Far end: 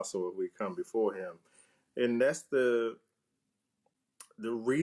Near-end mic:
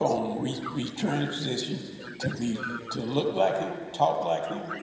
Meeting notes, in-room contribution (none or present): present